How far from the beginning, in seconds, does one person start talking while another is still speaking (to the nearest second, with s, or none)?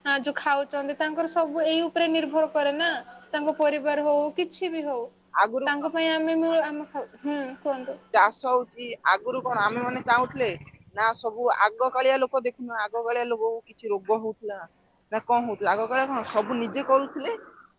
none